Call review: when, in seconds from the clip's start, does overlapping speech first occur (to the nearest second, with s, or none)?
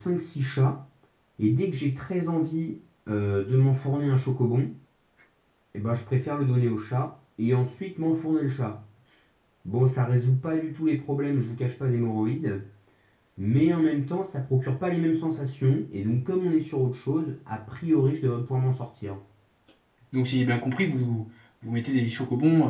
none